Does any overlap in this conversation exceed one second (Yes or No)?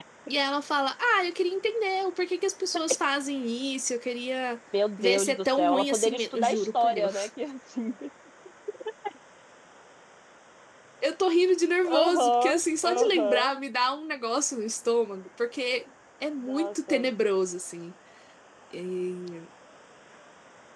Yes